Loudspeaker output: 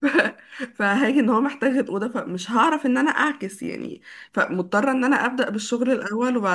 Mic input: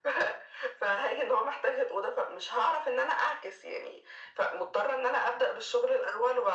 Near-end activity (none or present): none